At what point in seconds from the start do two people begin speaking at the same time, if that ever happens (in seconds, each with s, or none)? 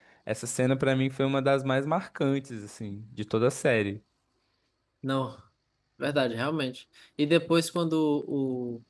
none